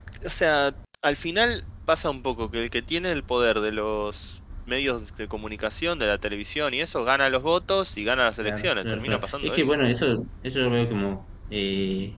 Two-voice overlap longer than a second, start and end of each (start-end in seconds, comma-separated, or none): 8.4-9.7